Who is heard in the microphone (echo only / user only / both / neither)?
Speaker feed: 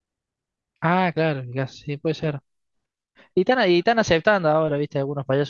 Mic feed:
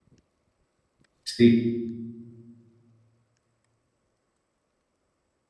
user only